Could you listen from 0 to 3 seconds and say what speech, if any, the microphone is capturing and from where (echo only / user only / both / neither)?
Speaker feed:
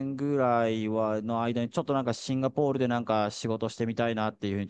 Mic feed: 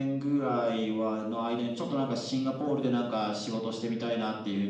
echo only